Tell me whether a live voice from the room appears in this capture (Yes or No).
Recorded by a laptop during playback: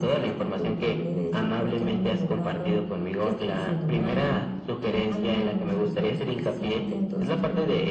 No